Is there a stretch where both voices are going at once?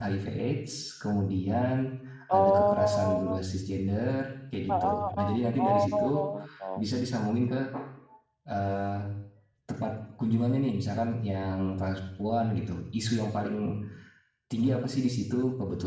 Yes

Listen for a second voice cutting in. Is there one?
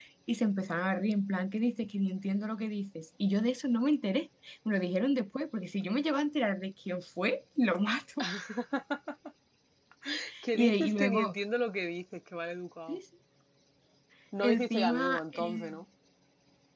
Yes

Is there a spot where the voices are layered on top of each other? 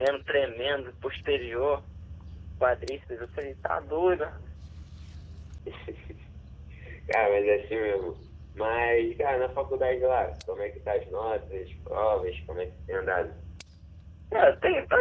No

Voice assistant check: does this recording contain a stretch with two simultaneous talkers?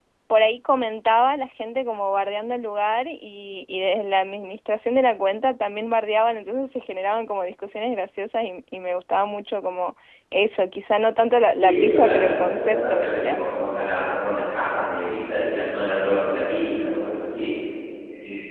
Yes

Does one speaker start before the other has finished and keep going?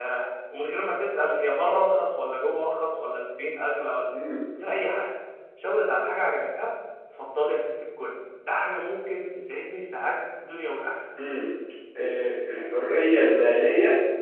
No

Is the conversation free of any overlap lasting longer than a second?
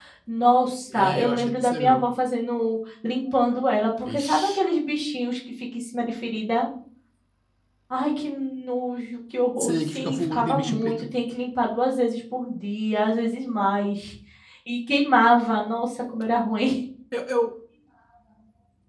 No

